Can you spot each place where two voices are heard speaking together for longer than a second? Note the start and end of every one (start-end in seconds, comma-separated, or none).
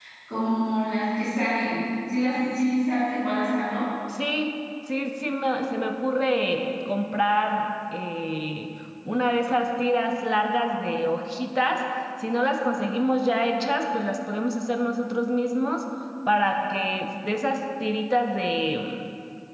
none